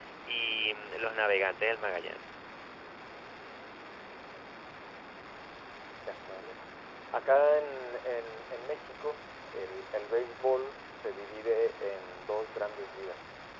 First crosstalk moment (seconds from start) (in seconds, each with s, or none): none